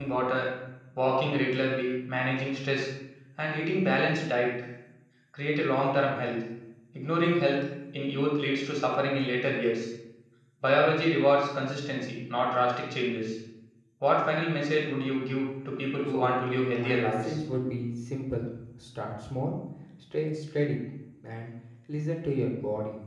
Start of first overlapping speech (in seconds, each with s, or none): 16.1 s